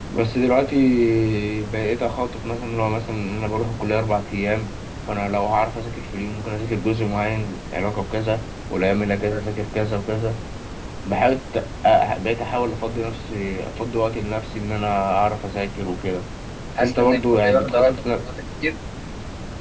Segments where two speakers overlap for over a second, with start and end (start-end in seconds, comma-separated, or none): 16.8-18.3